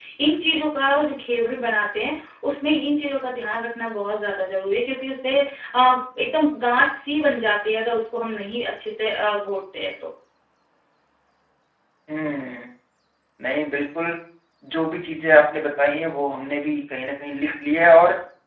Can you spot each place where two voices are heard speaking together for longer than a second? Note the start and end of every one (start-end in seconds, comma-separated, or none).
none